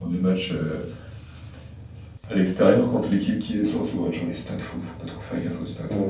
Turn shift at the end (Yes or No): Yes